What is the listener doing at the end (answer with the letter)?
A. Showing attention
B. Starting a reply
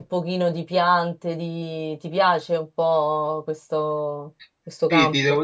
B